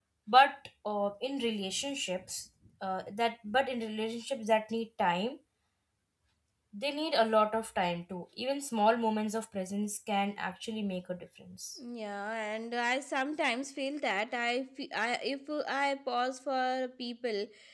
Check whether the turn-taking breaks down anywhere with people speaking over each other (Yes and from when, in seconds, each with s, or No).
No